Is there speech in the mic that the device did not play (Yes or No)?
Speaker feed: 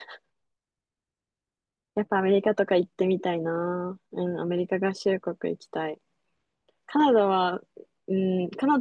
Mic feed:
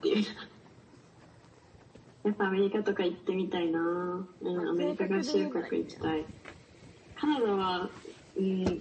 Yes